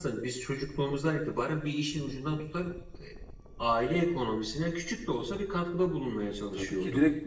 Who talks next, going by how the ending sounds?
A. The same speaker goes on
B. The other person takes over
B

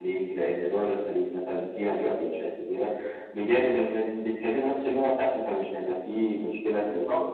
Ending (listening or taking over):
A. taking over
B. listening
A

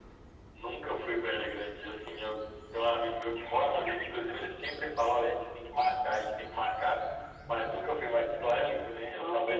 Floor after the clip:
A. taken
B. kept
A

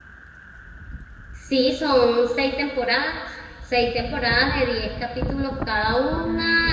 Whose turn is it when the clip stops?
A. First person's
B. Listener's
A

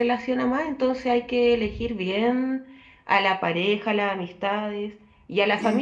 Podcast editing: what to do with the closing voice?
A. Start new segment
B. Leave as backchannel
B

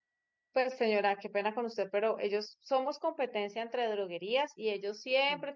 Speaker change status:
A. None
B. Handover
A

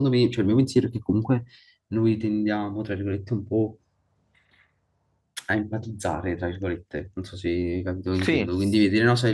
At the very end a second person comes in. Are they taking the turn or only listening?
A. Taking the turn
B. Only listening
B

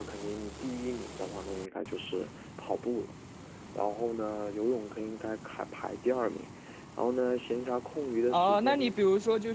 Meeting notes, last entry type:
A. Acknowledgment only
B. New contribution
B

